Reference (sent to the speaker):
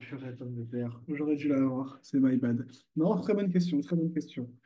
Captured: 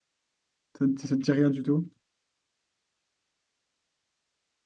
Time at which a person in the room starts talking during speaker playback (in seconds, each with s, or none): 0.8 s